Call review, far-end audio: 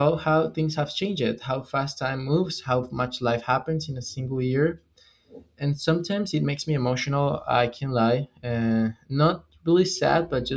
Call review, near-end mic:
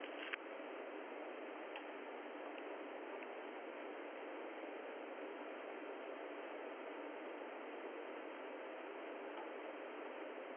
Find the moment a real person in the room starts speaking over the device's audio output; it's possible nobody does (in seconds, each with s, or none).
none